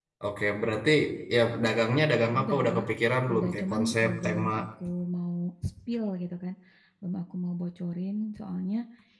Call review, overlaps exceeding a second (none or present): present